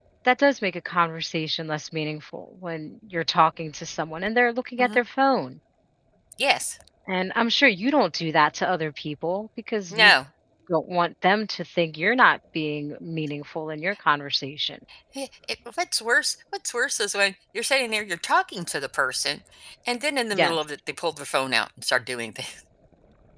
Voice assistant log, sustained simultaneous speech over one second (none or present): none